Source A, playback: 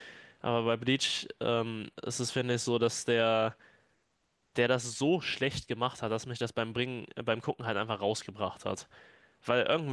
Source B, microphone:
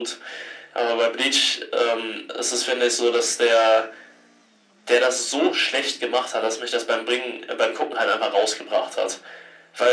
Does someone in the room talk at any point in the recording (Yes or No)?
No